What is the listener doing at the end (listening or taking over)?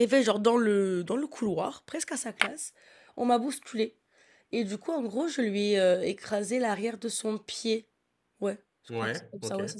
listening